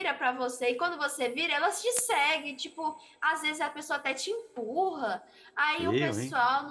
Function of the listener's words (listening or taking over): listening